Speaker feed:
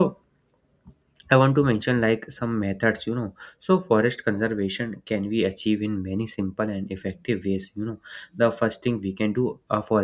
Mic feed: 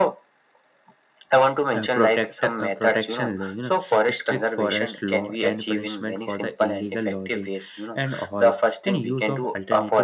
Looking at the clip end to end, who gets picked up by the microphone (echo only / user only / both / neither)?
both